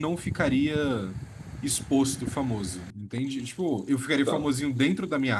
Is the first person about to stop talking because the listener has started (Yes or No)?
No